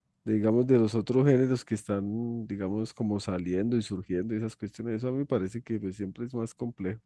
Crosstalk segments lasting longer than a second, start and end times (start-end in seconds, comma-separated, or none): none